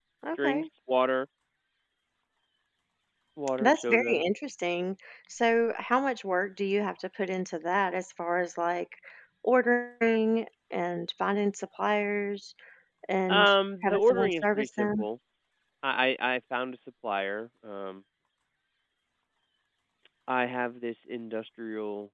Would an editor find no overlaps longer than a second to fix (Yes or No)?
No